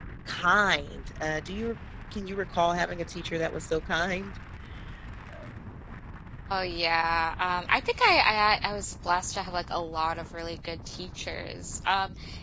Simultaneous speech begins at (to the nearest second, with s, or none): none